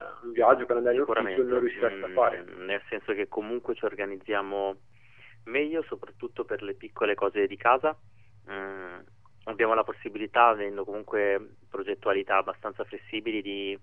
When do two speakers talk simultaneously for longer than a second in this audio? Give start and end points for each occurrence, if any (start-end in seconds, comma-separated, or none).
0.9-2.4